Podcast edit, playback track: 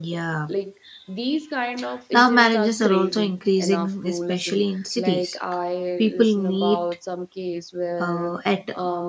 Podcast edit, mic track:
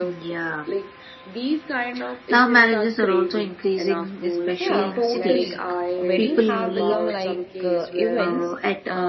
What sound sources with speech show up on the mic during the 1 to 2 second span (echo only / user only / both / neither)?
echo only